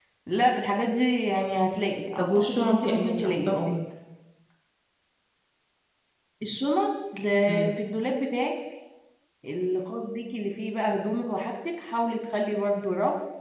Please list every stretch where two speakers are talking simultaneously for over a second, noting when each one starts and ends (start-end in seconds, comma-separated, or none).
2.2-3.7